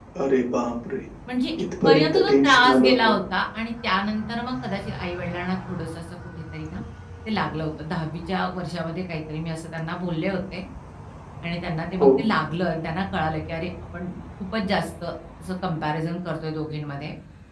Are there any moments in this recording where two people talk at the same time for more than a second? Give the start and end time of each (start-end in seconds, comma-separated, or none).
1.8-3.1